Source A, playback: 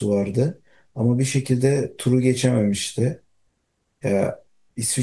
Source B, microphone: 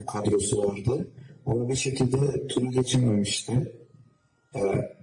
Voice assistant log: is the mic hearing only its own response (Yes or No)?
Yes